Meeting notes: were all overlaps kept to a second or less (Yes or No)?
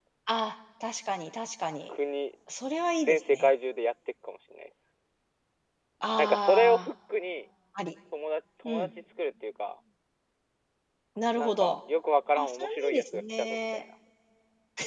No